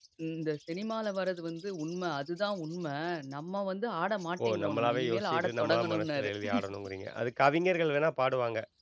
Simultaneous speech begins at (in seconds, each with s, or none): 4.4 s